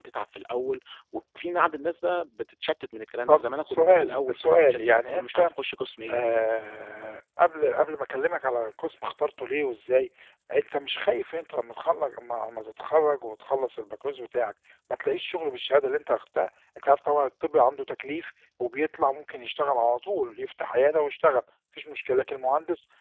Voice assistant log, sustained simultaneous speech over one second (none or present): present